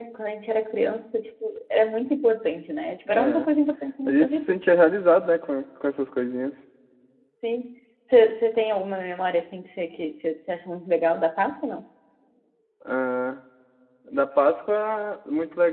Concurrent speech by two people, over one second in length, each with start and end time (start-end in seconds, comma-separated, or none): none